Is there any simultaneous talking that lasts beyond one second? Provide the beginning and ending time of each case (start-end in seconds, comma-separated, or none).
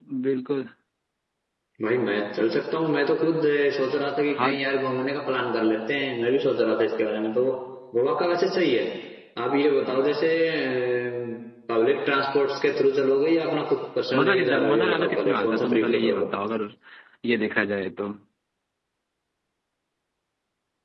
14.2-16.3